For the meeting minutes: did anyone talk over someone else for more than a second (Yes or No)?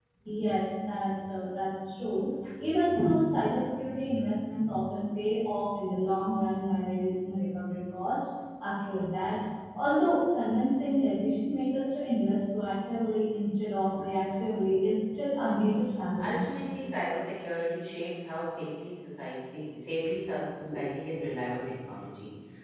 No